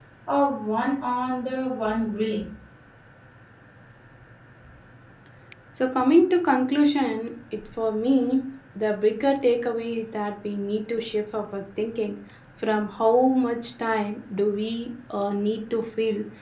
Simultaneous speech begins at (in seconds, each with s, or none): none